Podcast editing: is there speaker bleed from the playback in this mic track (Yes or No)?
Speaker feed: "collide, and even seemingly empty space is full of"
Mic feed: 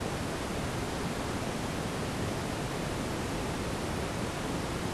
No